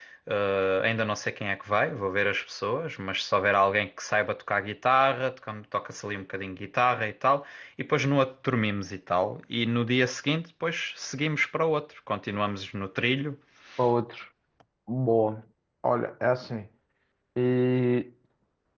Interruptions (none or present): none